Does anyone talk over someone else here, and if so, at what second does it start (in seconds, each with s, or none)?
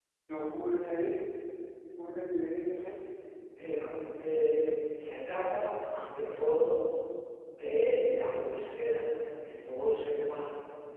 none